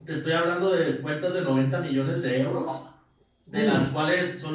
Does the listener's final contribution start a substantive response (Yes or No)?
No